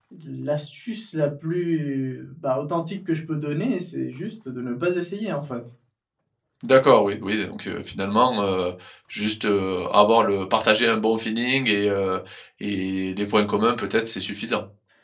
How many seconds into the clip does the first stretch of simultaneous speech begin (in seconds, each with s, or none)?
none